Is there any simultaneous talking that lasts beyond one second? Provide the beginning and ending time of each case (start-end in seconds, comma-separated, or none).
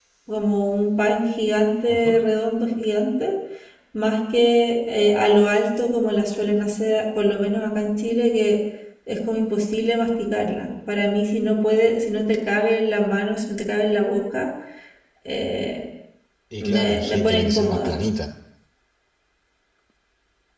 16.6-18.0